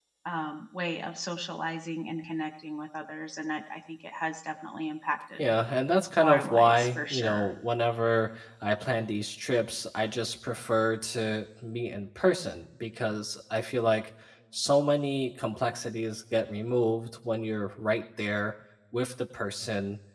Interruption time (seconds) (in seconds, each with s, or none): 6.2 s